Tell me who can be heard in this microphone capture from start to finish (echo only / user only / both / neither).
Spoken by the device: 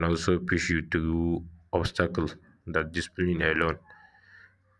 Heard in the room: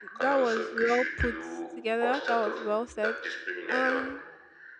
both